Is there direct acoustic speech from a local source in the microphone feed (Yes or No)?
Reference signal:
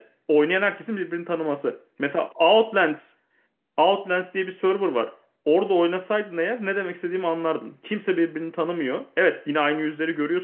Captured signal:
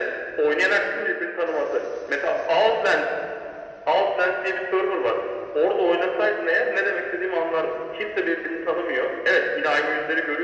No